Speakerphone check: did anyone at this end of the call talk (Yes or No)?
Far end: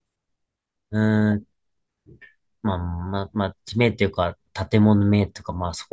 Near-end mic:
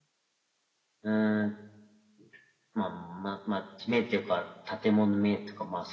No